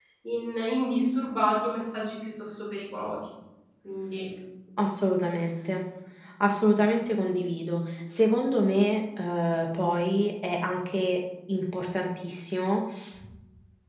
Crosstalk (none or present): none